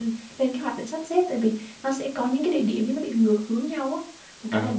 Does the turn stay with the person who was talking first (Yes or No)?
Yes